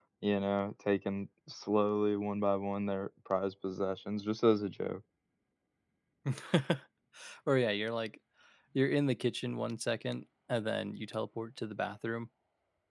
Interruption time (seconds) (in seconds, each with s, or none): none